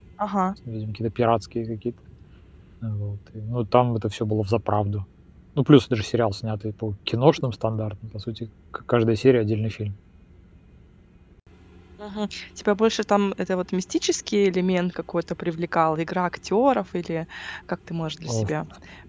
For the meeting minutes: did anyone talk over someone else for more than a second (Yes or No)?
No